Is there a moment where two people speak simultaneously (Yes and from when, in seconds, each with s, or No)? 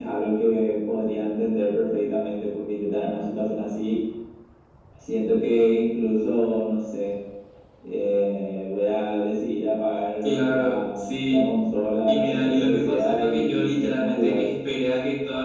Yes, from 10.2 s